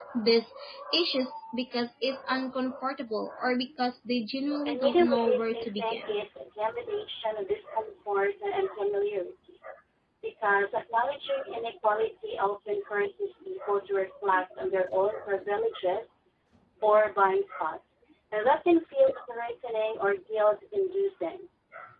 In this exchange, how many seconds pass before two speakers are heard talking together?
4.6 s

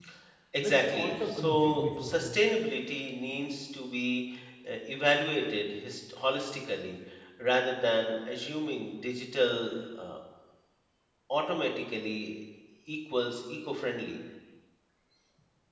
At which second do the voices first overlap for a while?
0.6 s

